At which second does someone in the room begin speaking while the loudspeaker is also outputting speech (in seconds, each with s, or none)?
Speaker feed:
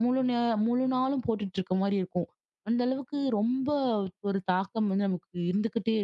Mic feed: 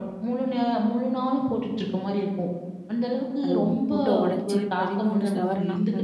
3.4 s